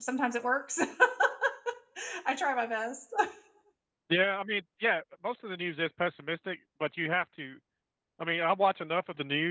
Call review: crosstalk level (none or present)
none